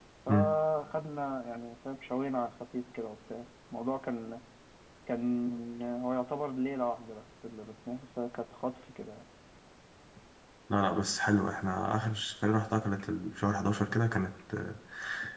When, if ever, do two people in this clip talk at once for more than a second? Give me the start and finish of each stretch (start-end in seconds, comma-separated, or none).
none